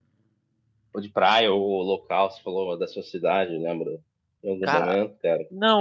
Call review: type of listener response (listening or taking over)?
taking over